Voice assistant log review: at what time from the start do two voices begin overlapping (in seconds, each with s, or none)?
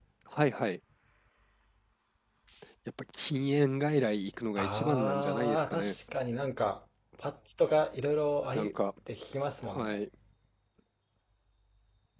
4.6 s